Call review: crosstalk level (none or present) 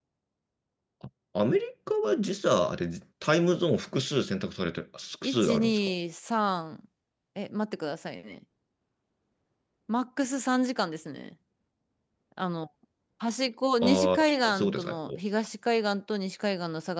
present